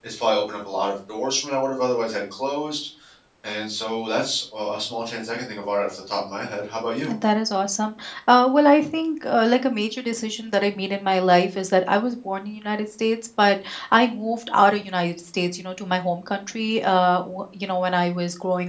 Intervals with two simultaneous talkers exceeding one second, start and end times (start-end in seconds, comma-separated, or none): none